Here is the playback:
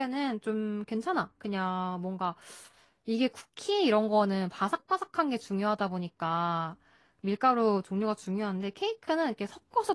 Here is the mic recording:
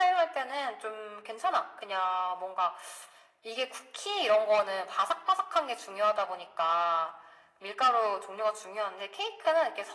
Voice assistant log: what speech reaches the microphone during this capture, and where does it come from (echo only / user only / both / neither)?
echo only